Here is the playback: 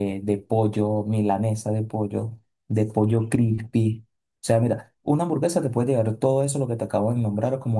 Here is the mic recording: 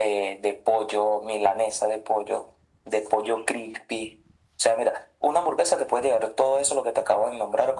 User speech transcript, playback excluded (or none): none